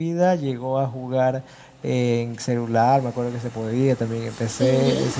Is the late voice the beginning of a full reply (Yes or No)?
No